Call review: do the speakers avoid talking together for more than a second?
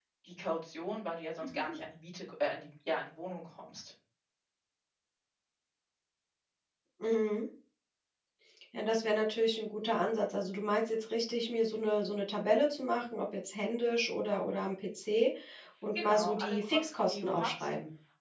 No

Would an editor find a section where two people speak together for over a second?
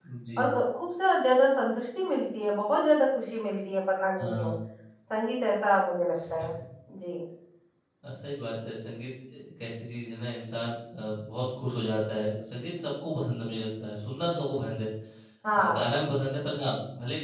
No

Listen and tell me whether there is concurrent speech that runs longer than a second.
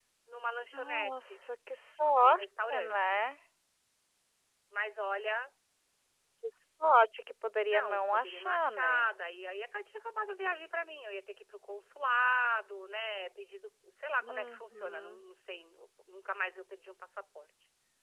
Yes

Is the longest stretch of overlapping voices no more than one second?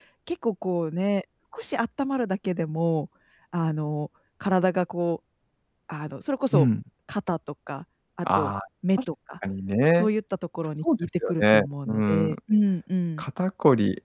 No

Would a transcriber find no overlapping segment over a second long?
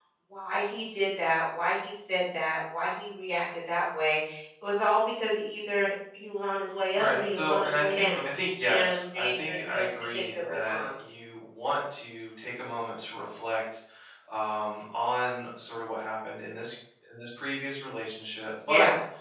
No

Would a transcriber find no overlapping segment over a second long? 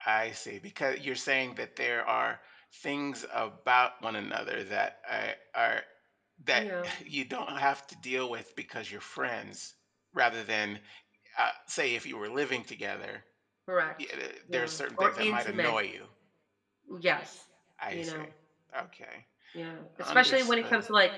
No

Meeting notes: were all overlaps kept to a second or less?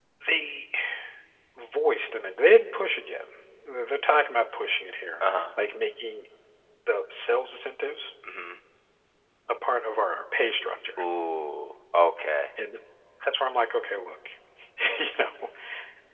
Yes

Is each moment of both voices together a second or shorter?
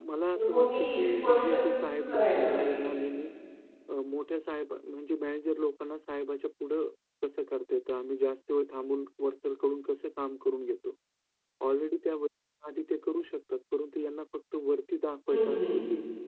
No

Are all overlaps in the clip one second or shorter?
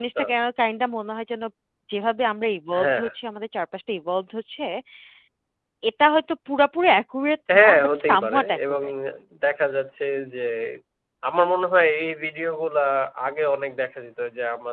No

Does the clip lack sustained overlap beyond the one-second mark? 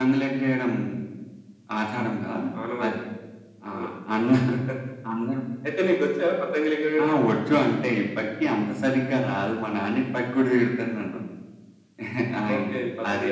Yes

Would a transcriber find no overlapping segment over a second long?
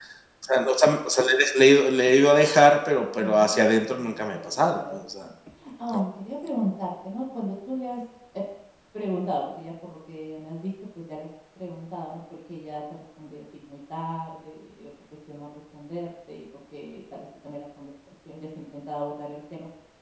No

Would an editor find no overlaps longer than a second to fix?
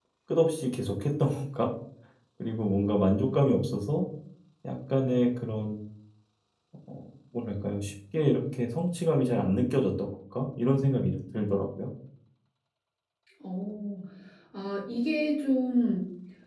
Yes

